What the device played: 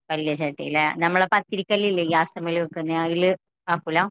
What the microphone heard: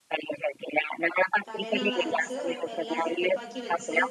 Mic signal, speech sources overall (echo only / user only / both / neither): both